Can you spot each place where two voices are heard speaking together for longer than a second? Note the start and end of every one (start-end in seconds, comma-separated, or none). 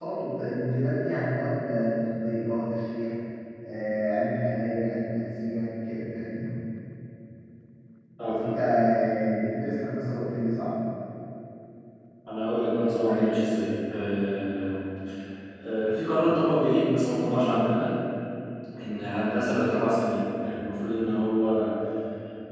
none